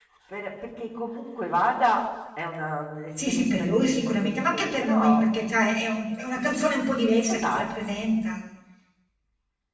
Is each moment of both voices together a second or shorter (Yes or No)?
No